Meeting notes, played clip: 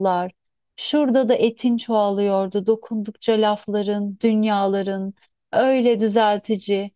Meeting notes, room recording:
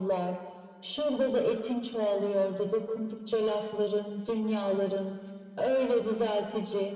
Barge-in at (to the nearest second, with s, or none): none